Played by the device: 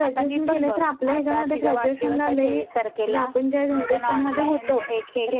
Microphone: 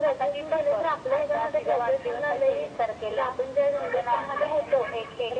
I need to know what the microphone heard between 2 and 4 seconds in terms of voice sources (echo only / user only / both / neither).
echo only